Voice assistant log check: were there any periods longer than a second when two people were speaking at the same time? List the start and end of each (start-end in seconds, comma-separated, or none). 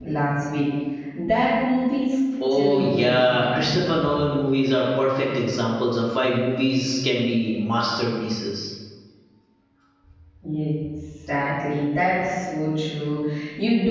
2.5-3.9